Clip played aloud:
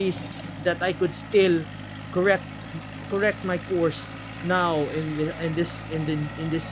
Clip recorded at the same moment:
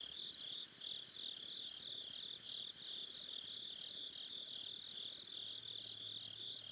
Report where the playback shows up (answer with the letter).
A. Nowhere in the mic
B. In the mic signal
A